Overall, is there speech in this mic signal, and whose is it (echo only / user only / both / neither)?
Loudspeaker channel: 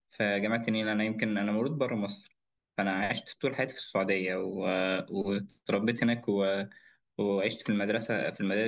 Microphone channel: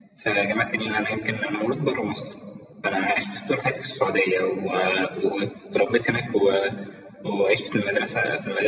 echo only